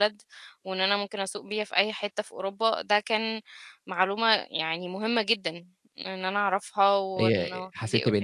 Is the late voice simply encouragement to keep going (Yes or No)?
No